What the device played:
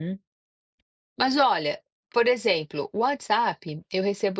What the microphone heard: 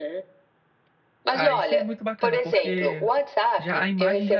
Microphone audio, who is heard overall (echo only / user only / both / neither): both